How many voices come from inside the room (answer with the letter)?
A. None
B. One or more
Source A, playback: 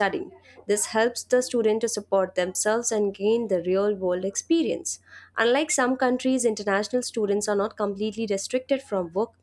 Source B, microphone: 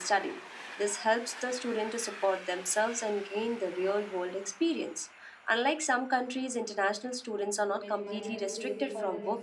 B